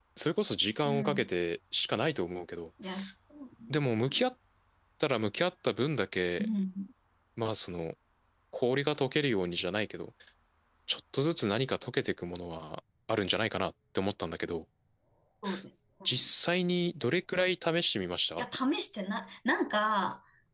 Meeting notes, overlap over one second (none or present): none